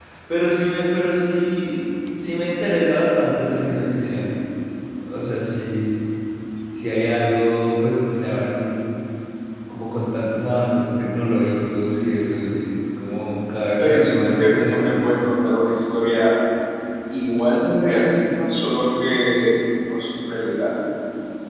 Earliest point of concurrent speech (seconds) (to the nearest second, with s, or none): 14 s